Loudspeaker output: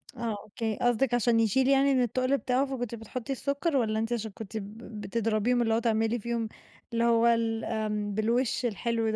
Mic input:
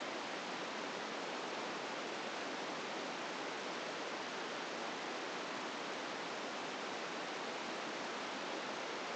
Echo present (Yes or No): No